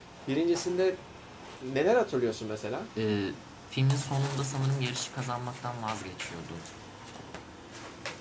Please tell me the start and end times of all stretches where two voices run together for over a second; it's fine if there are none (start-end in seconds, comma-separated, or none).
none